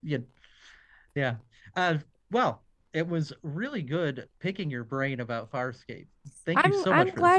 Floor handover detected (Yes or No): Yes